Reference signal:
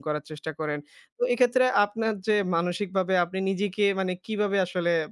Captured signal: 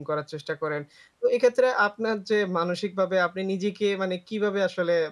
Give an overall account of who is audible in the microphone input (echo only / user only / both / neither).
echo only